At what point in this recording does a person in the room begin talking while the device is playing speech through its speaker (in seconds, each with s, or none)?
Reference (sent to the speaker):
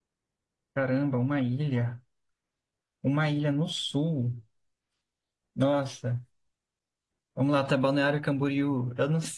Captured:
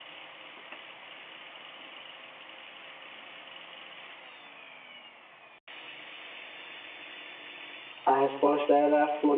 8.0 s